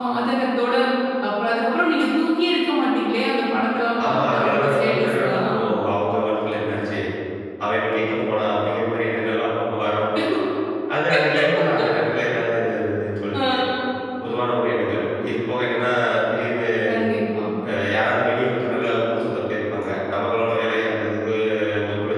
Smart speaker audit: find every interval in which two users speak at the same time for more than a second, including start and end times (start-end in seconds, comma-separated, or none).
4.0-5.5